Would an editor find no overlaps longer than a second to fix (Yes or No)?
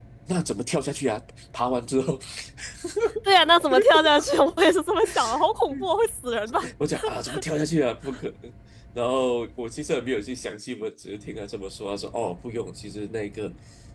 Yes